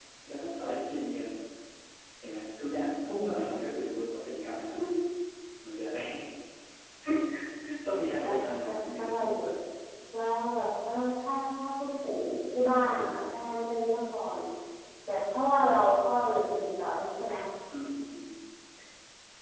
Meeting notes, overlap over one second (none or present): present